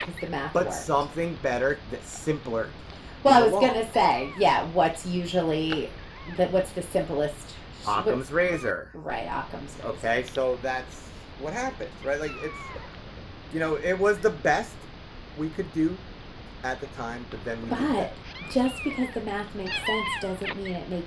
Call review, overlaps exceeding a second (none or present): none